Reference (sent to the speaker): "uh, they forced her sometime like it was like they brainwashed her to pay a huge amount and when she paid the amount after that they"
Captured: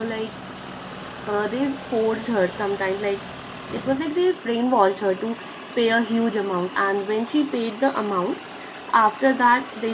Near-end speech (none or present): none